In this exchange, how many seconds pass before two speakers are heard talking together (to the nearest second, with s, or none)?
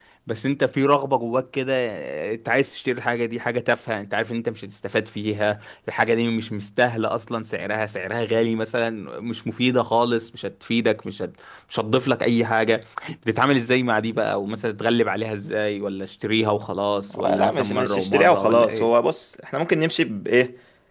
17 s